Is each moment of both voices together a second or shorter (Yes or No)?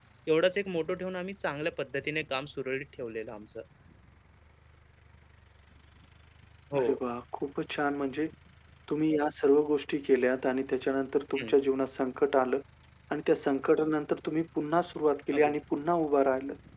Yes